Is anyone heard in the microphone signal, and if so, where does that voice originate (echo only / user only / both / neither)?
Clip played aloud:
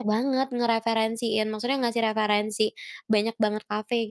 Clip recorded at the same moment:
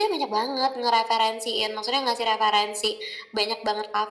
echo only